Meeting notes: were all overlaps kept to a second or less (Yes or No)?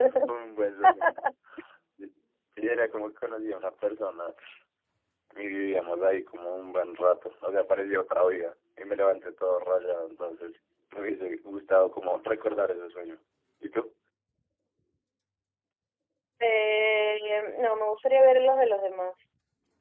Yes